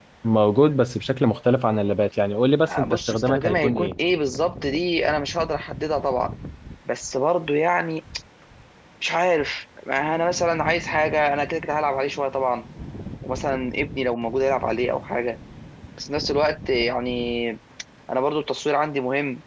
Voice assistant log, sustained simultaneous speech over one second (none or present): present